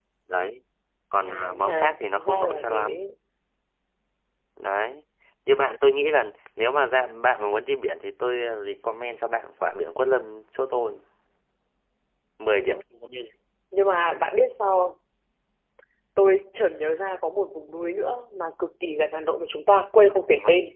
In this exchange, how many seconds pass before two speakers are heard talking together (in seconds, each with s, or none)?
1.2 s